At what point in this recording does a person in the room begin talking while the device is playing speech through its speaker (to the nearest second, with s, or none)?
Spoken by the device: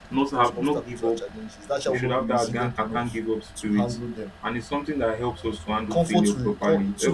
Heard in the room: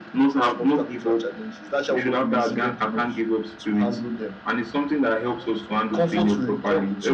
none